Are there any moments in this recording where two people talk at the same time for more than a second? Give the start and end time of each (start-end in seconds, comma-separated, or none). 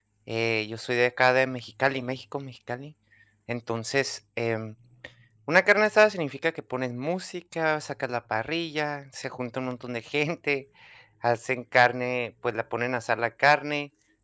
none